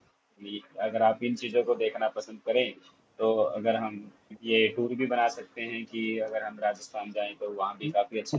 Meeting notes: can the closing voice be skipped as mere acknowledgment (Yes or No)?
No